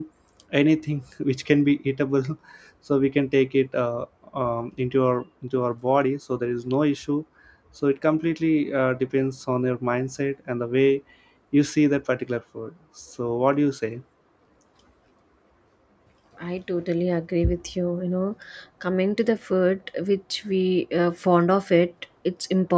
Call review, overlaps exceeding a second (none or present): none